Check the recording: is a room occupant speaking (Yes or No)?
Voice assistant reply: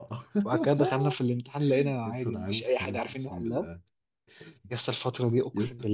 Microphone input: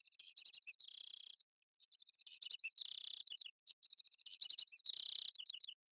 No